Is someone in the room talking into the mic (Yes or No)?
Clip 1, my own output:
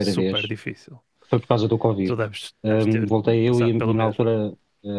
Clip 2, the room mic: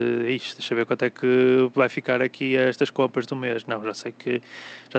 Yes